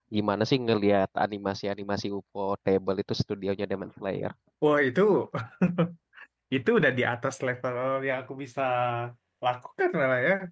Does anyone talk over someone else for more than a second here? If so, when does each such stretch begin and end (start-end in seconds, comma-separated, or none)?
none